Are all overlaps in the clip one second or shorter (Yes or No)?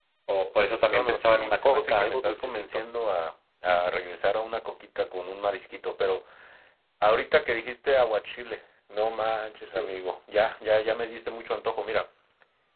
No